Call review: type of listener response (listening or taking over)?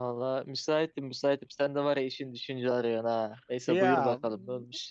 taking over